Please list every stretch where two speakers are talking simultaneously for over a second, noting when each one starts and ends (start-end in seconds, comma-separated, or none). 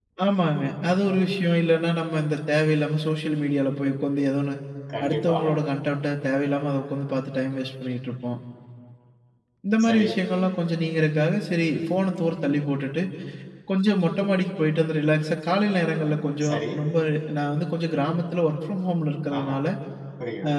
none